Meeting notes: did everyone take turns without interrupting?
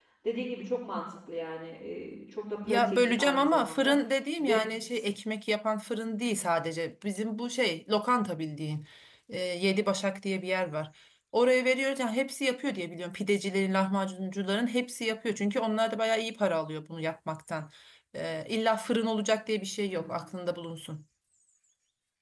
No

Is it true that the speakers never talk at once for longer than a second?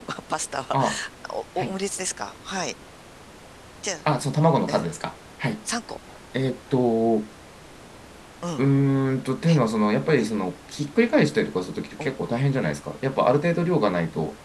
Yes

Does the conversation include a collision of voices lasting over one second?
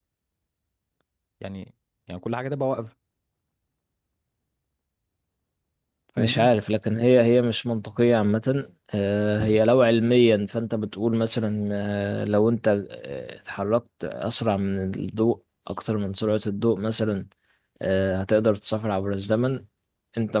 No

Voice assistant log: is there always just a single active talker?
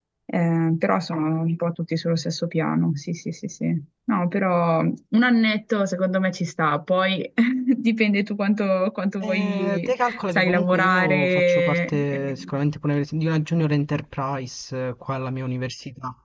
No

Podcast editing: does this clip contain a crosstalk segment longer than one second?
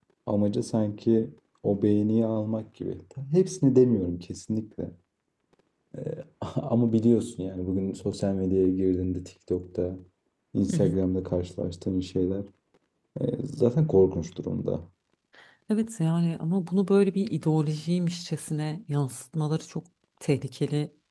No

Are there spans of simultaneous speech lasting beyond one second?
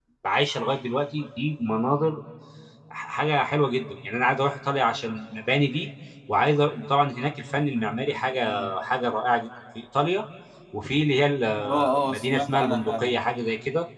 Yes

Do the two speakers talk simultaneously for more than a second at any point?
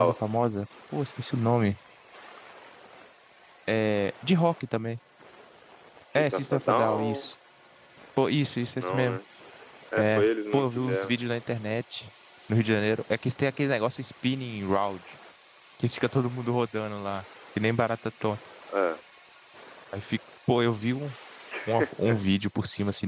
Yes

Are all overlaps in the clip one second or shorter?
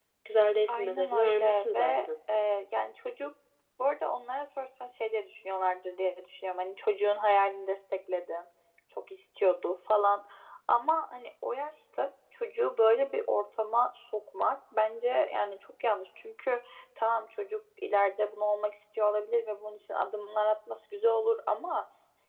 No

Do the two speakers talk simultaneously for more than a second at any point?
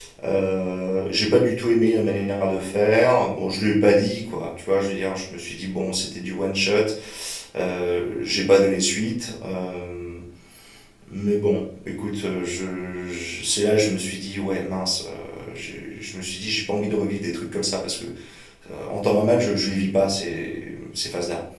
No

